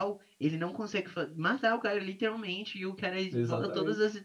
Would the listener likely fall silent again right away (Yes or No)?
Yes